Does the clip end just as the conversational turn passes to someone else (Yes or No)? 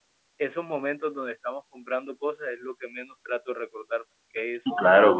Yes